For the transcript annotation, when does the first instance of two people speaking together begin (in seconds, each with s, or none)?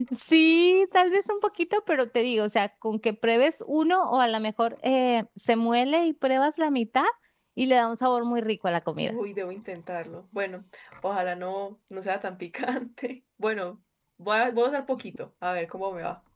none